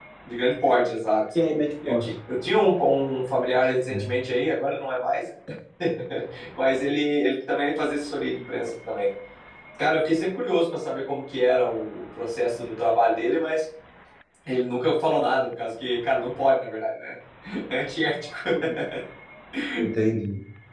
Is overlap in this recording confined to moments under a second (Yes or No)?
Yes